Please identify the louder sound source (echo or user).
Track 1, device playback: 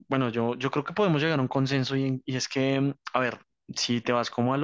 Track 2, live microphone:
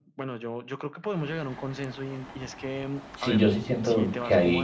user